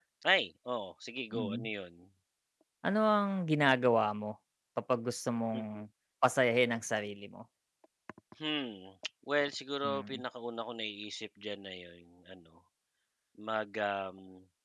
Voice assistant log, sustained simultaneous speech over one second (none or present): none